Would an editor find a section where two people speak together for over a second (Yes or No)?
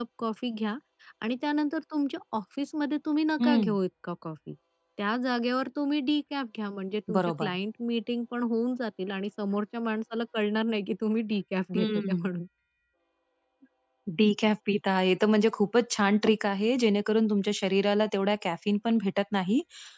No